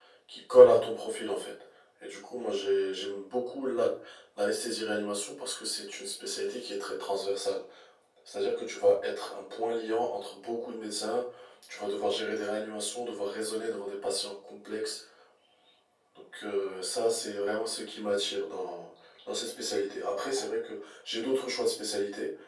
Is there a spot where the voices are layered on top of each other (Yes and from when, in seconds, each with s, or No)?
No